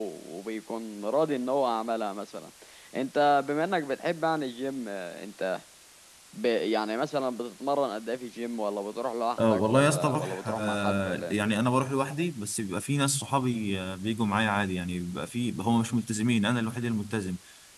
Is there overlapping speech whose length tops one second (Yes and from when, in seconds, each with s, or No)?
Yes, from 9.4 s